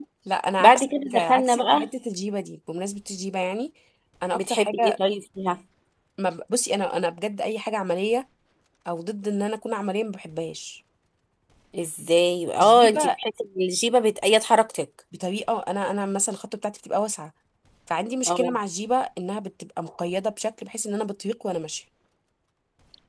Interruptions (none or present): present